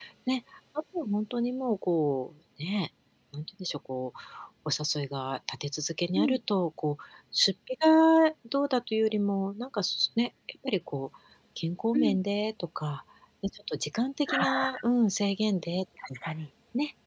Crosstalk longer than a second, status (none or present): none